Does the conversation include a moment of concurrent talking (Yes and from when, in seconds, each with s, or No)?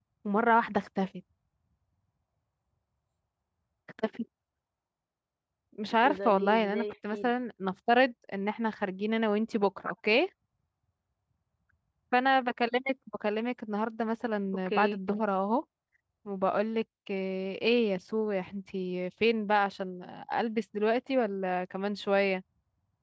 Yes, from 6.0 s